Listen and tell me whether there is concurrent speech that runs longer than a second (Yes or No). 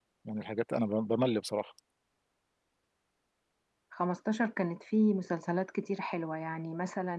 No